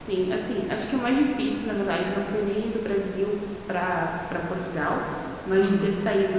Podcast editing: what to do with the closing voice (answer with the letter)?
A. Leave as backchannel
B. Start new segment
A